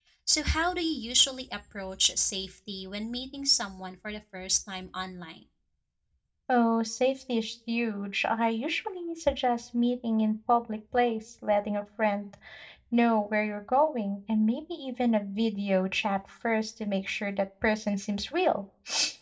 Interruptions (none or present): none